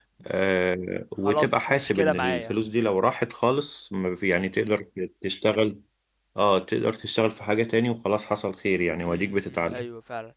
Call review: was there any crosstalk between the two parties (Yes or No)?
Yes